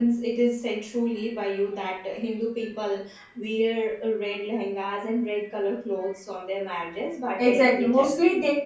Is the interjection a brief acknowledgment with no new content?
No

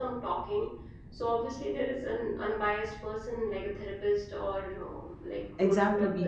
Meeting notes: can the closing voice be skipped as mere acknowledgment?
No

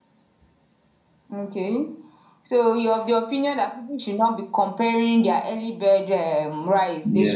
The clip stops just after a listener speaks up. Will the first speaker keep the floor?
No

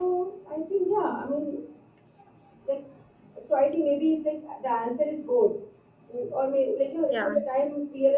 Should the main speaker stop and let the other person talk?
No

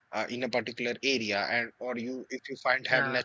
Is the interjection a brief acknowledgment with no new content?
Yes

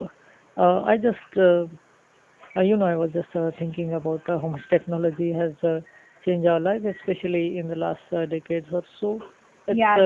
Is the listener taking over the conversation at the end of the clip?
Yes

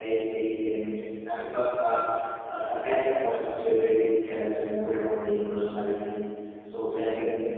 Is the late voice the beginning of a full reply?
No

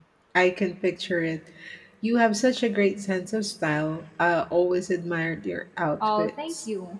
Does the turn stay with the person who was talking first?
No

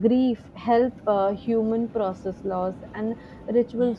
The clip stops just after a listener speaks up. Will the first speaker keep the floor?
Yes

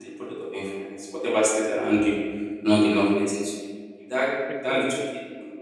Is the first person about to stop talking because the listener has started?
No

